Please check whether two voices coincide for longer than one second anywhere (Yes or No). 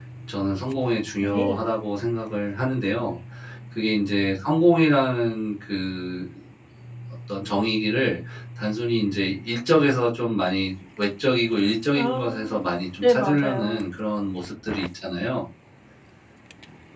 Yes